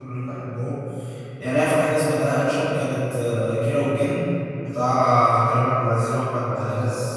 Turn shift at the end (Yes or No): No